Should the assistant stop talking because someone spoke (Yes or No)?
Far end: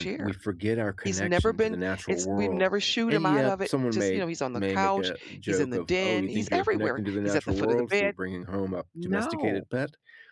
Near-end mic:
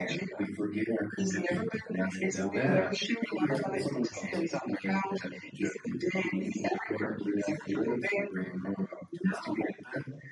Yes